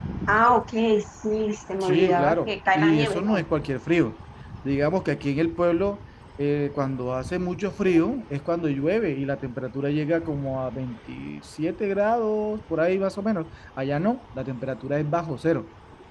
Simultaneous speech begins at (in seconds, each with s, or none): 1.8 s